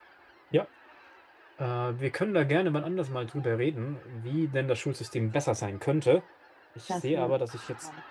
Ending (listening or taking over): listening